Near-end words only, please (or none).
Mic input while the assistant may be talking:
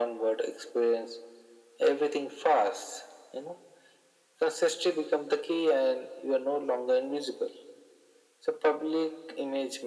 none